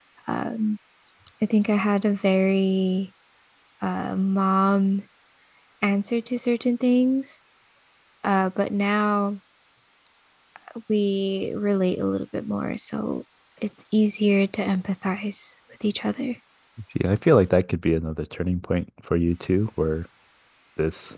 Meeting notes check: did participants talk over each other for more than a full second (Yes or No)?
No